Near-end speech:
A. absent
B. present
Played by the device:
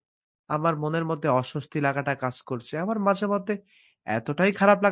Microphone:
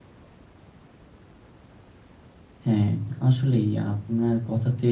B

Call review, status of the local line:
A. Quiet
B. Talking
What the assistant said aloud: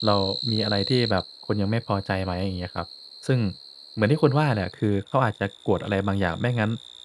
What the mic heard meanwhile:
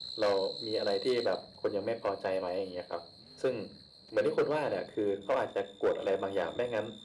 A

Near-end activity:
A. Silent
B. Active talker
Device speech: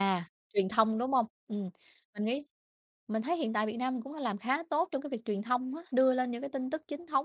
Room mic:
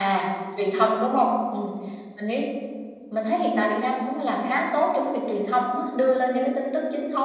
A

